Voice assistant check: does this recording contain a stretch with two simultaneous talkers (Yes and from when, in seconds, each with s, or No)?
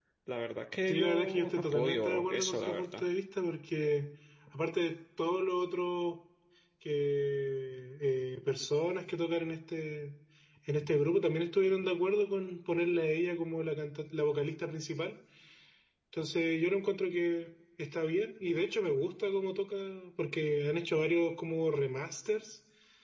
Yes, from 0.9 s